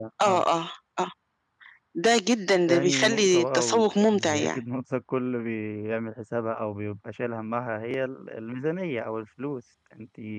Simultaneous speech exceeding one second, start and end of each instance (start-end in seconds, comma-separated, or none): 2.7-4.6